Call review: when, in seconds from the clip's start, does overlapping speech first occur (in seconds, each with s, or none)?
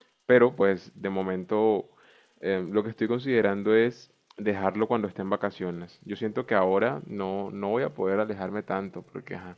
none